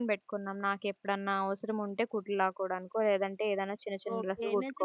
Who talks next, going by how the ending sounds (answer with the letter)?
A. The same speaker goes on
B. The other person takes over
B